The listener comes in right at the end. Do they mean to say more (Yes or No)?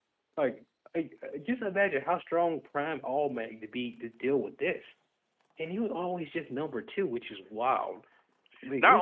Yes